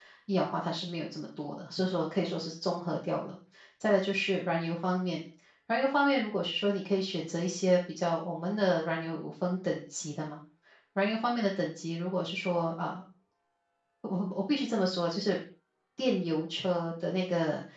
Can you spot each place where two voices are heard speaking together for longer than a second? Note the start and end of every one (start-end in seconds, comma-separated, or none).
none